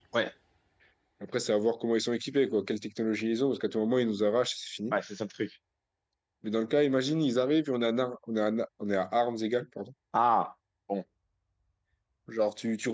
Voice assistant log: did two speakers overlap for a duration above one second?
No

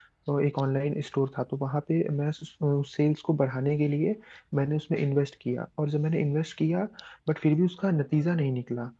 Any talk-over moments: No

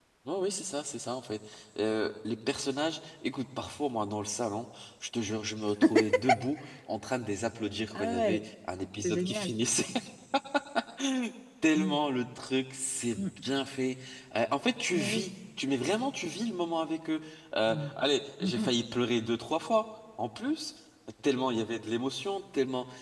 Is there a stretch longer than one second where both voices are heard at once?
No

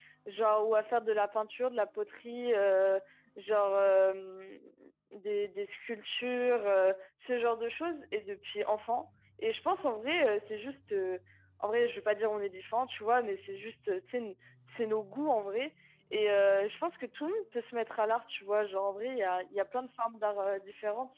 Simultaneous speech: No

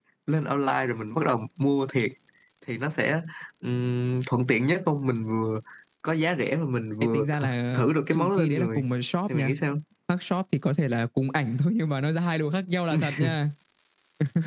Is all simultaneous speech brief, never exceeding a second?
No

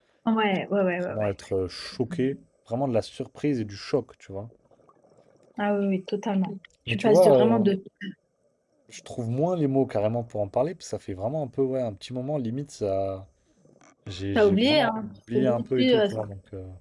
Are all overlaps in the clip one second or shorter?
No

